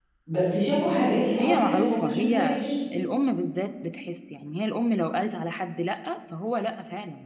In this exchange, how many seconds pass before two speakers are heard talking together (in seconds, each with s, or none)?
1.4 s